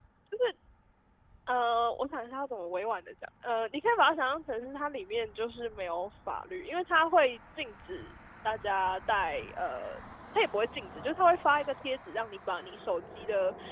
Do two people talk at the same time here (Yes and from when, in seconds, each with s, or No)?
No